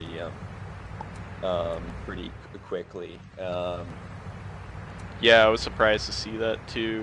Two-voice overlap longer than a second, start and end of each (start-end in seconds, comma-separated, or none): none